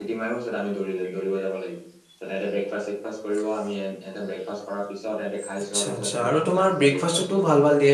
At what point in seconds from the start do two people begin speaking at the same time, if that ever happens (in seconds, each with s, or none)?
5.7 s